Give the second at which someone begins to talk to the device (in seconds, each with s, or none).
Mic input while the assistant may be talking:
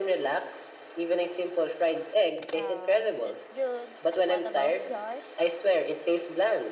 2.5 s